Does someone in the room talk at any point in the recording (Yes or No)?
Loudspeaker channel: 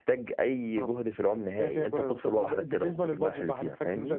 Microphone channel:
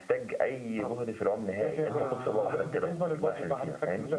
Yes